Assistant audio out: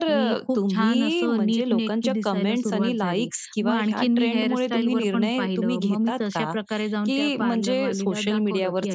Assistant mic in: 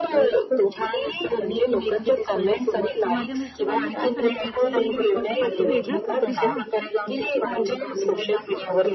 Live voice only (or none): तर माझ्या मिस्टरांनी पण सांगितलं की "तू काहीतरी वेगळं करते ना आजकाल,